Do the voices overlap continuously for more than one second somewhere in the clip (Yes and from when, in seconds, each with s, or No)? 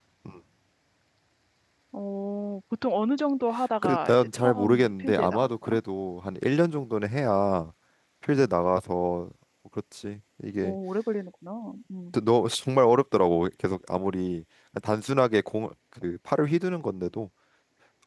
Yes, from 3.8 s